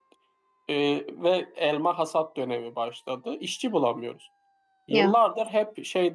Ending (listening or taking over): listening